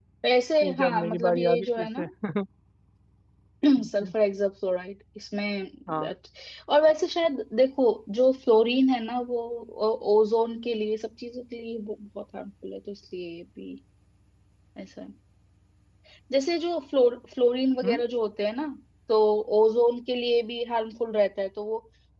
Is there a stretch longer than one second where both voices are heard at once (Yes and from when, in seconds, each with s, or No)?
Yes, from 0.6 s